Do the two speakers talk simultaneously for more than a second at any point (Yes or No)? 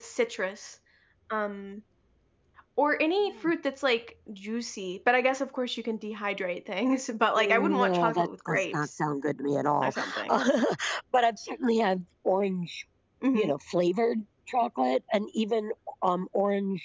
Yes